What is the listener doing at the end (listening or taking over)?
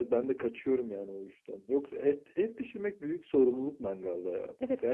taking over